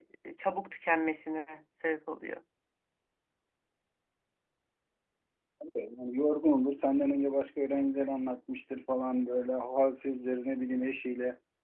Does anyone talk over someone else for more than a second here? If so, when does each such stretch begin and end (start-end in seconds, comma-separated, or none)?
none